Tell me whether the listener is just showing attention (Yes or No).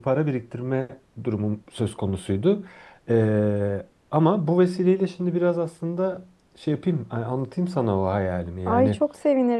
No